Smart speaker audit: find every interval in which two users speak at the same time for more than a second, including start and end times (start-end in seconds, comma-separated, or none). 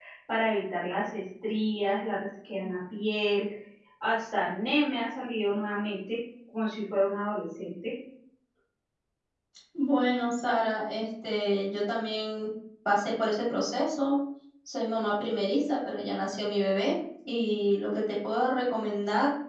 none